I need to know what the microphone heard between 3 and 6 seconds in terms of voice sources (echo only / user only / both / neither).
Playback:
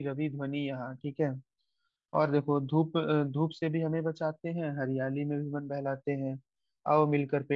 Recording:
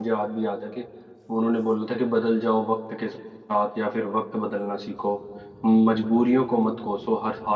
user only